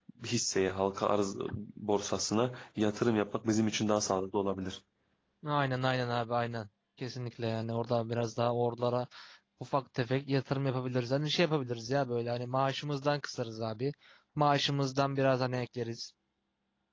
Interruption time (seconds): none

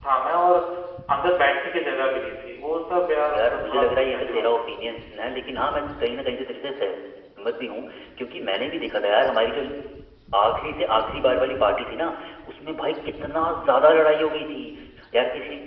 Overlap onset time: 3.3 s

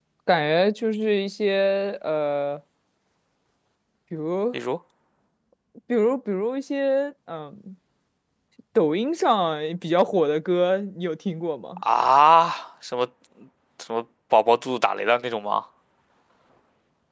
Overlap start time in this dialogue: none

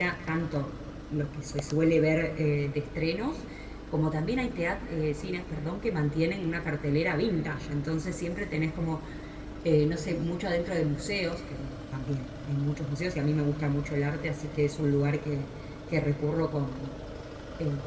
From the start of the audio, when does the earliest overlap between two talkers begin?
none

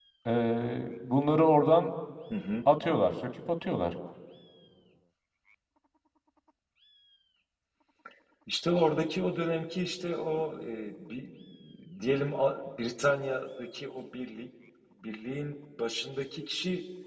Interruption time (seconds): none

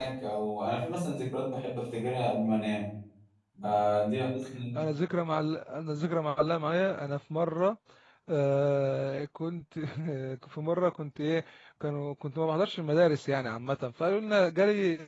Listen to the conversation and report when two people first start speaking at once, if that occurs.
none

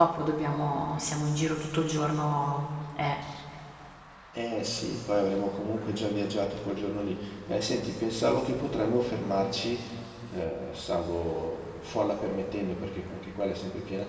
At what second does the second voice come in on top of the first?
none

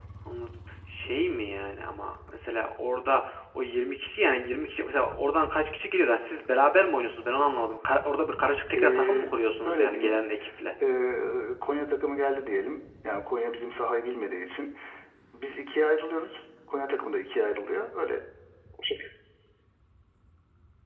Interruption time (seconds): 8.7 s

